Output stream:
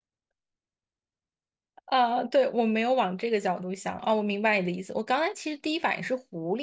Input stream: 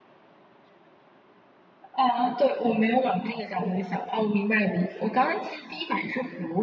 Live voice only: none

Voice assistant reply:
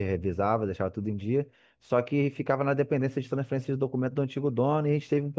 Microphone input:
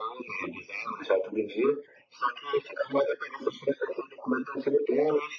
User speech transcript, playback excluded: none

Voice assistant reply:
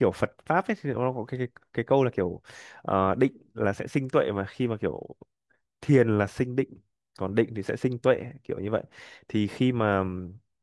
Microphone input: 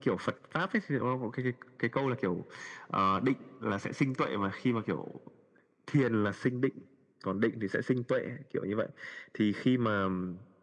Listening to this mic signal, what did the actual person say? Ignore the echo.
none

